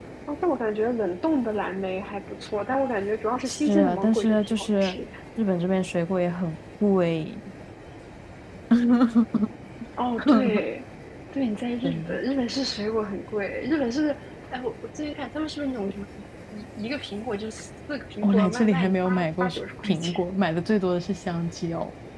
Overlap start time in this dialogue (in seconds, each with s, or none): 3.4 s